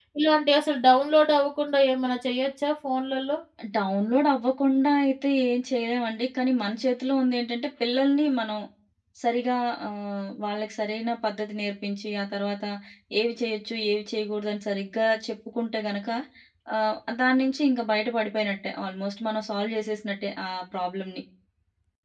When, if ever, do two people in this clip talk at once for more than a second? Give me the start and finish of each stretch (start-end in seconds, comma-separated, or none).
none